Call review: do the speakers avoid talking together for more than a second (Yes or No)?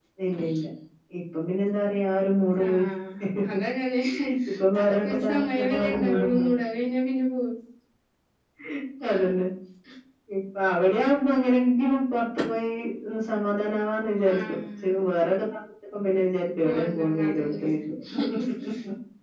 No